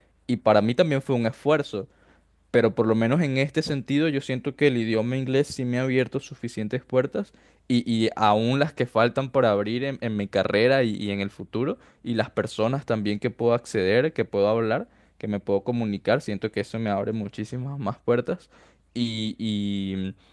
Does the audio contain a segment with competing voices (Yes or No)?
No